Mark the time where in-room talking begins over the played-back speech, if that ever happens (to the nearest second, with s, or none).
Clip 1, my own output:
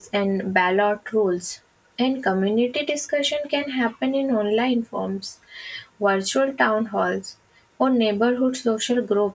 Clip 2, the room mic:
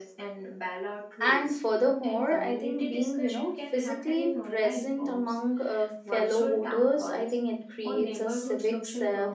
1 s